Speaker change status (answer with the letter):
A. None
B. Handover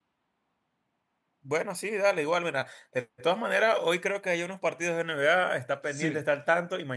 A